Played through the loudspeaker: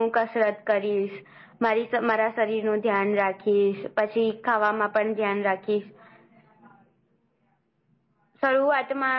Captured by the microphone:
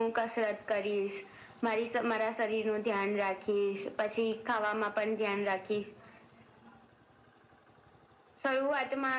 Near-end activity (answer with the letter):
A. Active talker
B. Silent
B